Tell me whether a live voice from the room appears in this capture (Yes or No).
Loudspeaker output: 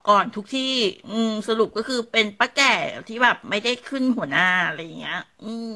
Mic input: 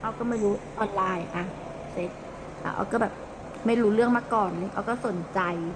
Yes